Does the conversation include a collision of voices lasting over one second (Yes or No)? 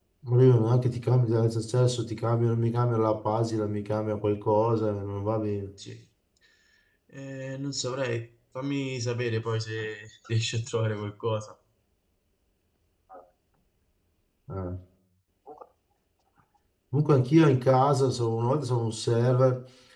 No